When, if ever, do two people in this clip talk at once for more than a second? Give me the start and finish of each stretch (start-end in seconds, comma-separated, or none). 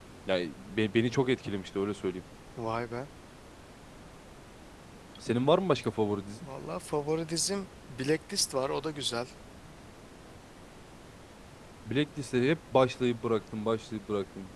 none